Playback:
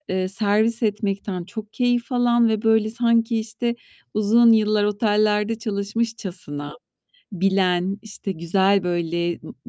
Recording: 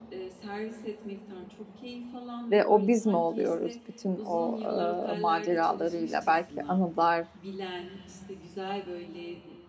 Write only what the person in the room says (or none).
ve o biz mi oluyoruz bütün o, eee, maceralarıyla, belki anılar